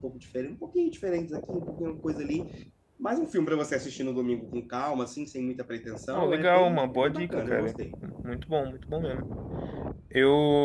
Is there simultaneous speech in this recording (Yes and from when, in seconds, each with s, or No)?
Yes, from 6.1 s